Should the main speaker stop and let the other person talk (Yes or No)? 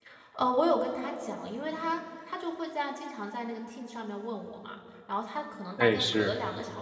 No